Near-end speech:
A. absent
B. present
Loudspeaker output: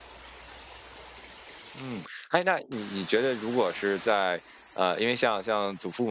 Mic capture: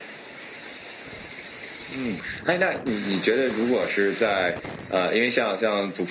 A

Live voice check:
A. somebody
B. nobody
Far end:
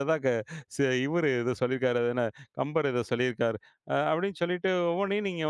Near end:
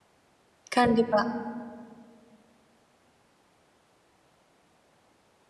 A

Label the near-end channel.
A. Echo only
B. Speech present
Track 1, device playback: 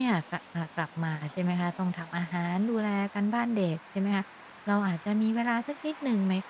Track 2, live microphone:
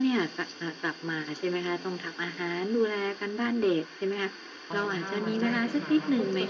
B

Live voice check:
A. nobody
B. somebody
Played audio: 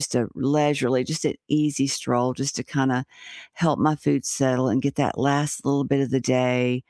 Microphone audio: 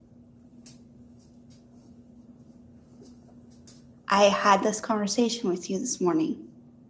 B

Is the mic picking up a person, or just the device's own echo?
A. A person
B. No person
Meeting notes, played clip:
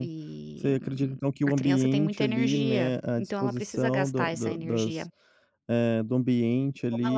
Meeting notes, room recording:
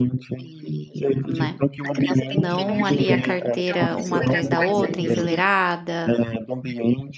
A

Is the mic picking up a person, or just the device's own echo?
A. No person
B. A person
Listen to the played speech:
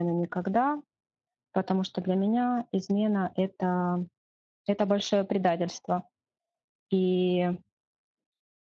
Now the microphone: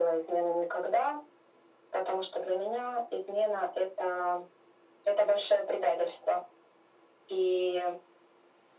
A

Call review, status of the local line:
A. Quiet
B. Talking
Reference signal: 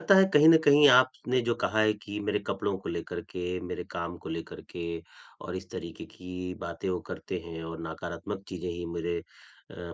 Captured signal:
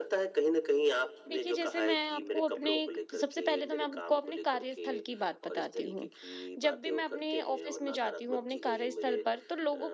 B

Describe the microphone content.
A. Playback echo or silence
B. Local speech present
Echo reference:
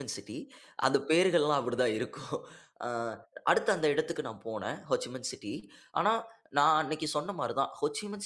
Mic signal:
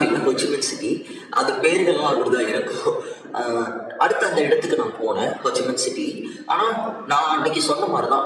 A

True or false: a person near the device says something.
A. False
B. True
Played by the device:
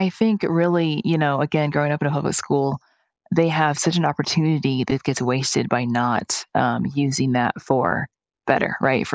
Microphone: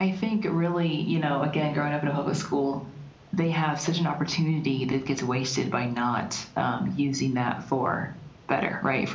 A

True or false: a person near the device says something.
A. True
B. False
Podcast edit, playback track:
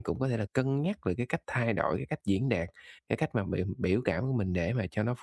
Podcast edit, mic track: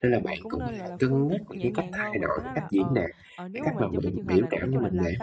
A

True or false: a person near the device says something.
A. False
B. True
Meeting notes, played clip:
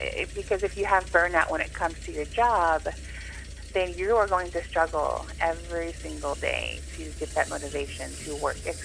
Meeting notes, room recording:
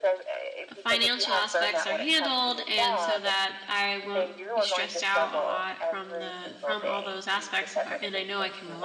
B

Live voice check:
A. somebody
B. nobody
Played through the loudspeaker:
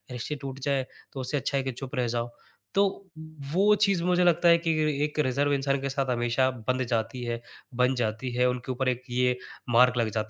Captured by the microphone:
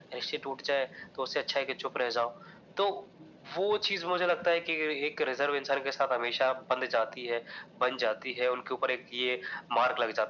B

